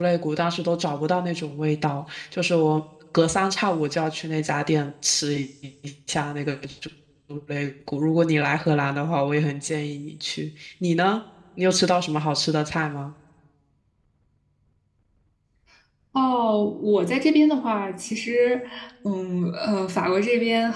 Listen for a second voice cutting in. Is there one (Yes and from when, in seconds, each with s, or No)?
No